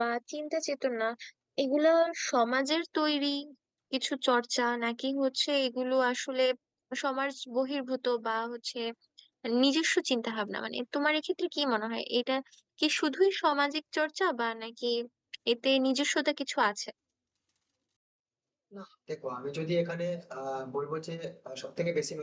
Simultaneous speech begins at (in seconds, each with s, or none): none